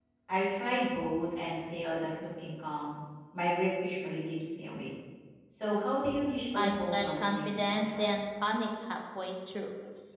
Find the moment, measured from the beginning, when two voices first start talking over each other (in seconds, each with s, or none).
6.5 s